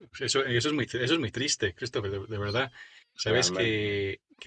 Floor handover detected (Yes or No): No